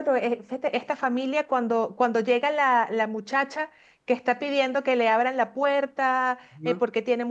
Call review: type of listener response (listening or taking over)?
listening